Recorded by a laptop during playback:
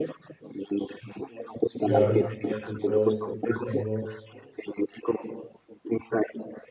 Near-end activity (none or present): present